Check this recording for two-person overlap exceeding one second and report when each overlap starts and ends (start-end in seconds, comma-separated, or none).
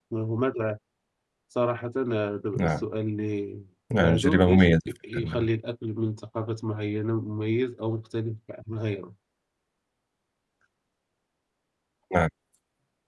3.9-5.5